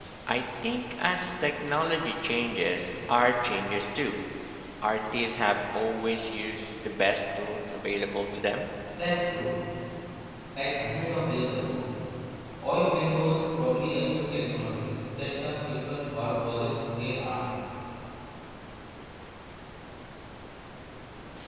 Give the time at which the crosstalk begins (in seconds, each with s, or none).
none